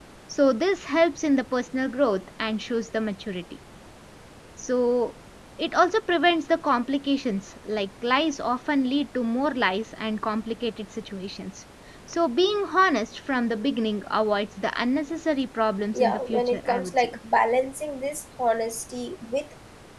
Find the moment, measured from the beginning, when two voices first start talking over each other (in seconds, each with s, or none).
15.9 s